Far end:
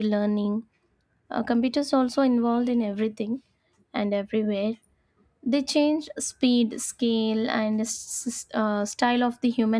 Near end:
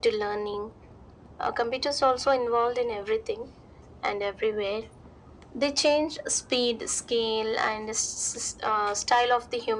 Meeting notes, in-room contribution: none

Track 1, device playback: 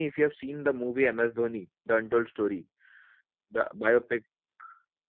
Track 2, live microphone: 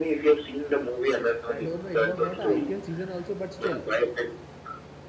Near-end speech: present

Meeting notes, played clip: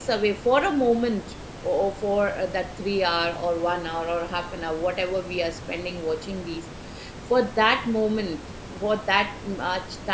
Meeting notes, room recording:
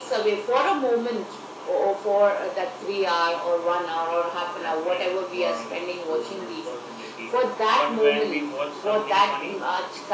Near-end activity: present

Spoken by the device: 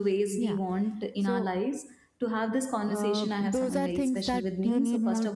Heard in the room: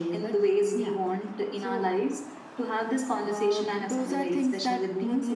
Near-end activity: none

